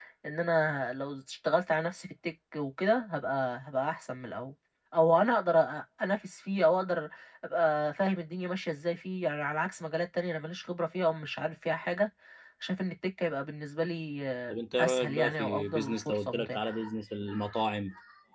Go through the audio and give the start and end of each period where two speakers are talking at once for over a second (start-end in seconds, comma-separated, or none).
14.5-16.7